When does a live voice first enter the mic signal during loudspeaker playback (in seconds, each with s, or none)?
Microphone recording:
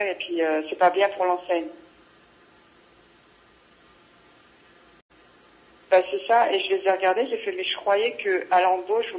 none